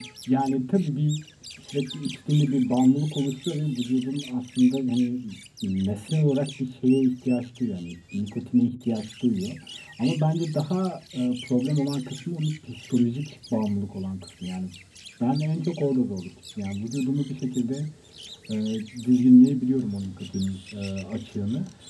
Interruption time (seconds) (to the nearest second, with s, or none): none